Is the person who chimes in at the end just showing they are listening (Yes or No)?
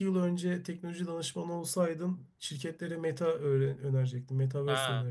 No